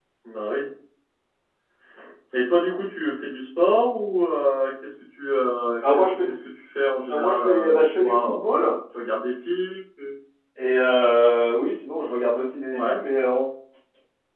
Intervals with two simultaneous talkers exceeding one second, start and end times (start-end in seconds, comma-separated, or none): 7.1-8.4